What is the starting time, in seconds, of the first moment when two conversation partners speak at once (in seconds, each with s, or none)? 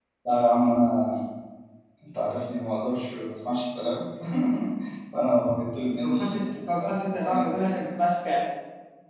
6.0 s